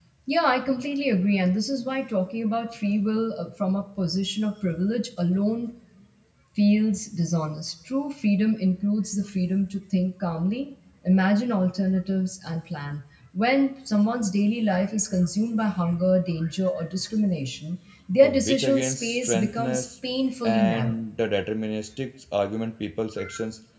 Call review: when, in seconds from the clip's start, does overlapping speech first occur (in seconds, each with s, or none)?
18.2 s